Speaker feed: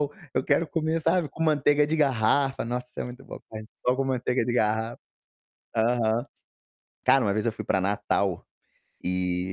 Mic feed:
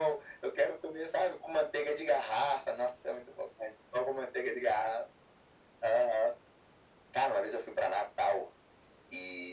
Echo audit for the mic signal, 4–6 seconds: echo only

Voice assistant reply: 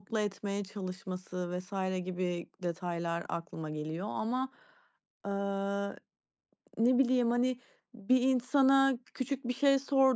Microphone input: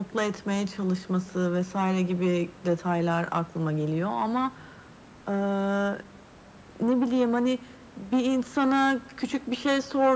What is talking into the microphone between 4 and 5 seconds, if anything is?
echo only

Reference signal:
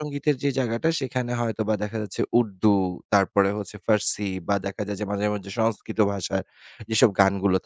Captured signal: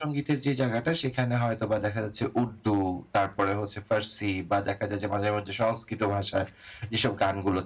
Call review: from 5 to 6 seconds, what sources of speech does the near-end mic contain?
echo only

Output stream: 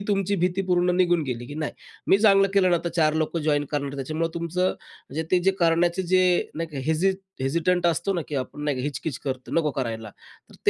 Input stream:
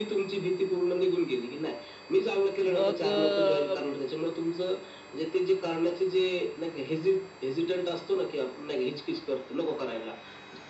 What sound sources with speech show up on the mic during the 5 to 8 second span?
echo only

